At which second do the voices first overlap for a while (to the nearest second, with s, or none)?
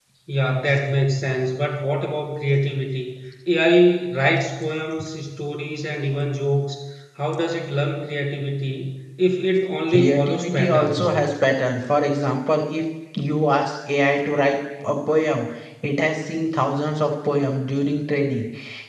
10 s